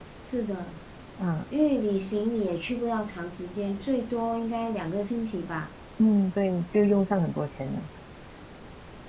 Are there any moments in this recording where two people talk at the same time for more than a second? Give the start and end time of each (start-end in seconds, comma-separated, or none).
none